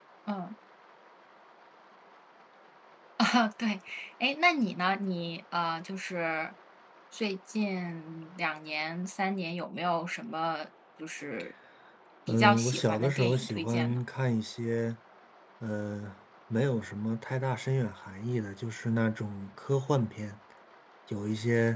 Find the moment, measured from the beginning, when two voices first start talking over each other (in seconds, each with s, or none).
12.3 s